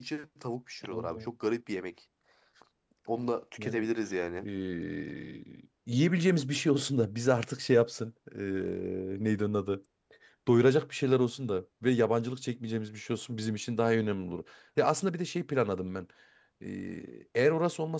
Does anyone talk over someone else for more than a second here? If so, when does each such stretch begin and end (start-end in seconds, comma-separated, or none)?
none